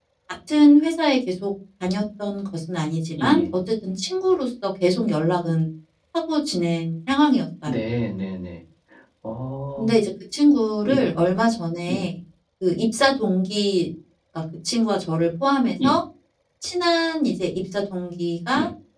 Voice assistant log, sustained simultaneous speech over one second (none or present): none